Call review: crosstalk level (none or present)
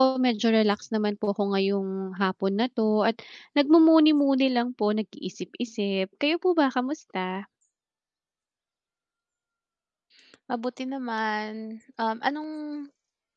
none